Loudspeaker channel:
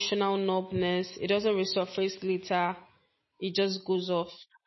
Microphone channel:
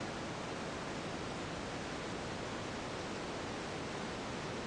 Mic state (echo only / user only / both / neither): neither